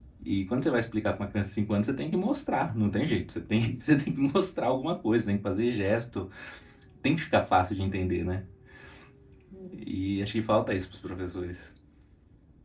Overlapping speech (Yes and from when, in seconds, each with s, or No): No